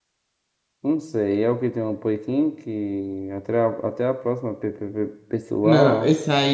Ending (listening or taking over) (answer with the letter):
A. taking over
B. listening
A